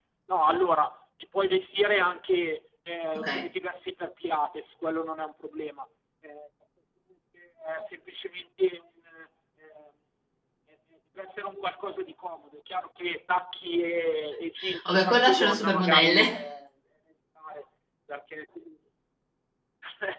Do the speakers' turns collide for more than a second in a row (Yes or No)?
Yes